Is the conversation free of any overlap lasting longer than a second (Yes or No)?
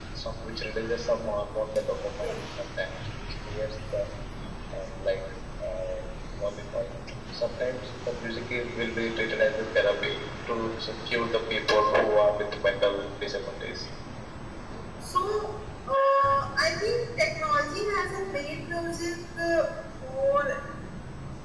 Yes